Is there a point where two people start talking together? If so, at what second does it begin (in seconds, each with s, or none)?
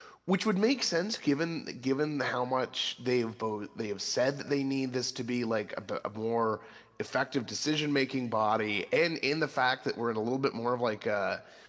none